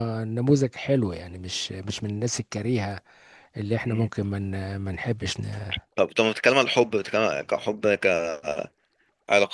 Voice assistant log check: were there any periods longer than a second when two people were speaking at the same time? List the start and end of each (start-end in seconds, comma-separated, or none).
none